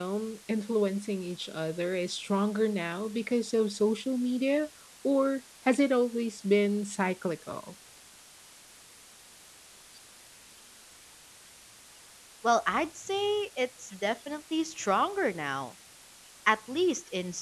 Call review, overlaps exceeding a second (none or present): none